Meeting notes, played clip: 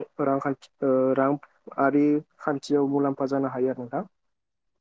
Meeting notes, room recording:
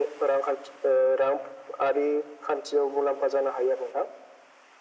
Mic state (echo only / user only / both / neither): echo only